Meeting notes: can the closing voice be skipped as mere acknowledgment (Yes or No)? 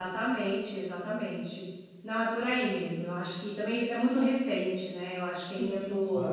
No